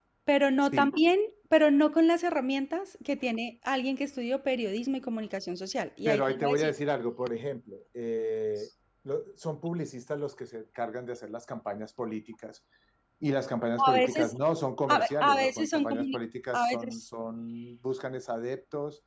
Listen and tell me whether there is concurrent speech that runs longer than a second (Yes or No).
Yes